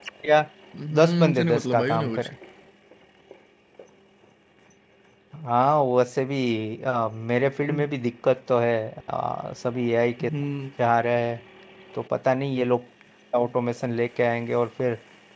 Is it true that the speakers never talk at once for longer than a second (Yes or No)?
No